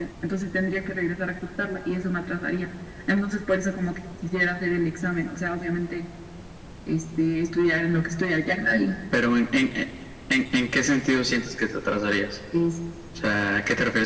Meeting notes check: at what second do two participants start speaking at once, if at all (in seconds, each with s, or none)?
none